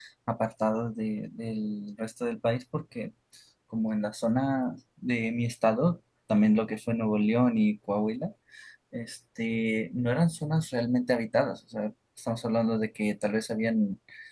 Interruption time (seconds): none

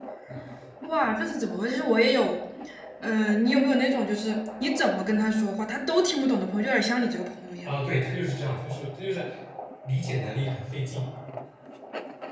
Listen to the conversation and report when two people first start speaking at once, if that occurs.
none

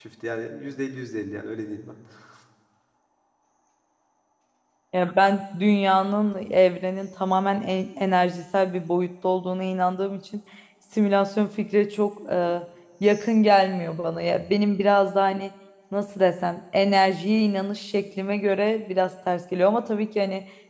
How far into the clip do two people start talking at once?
none

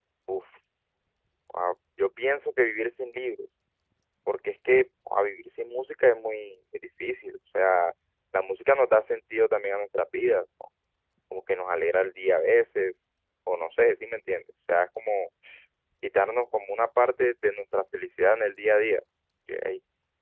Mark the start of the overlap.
none

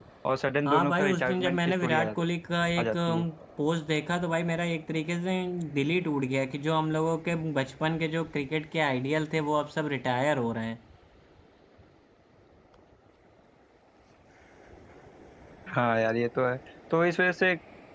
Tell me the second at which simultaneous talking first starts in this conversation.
0.6 s

